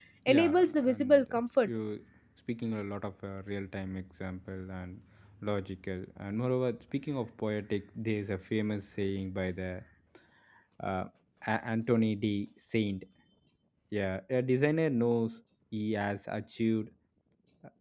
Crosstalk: present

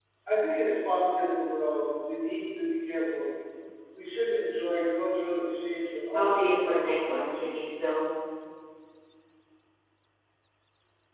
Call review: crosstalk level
present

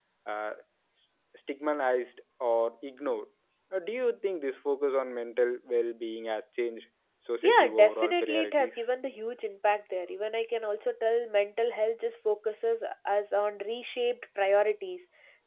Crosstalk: present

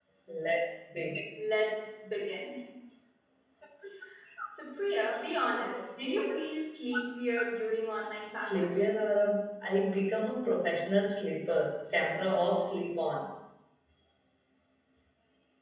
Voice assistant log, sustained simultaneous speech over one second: none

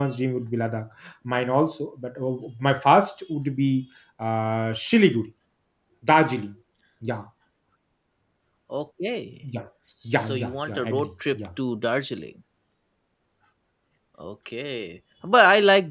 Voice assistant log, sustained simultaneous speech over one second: present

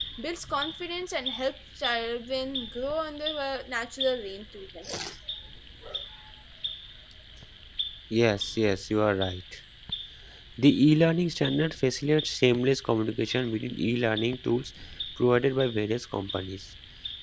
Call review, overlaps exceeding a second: none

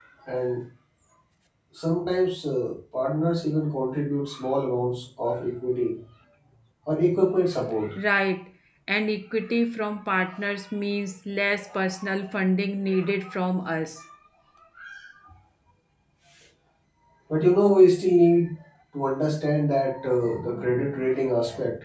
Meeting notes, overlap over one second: none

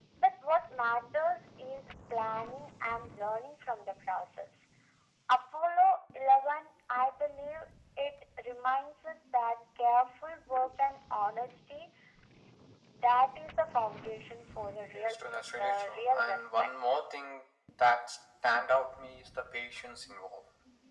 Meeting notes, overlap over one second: present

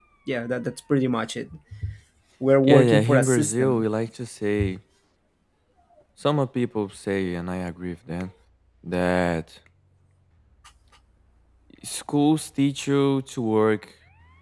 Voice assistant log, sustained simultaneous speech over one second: present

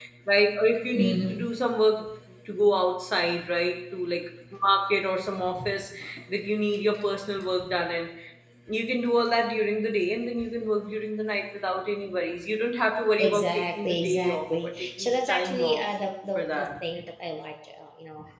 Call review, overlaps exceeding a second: present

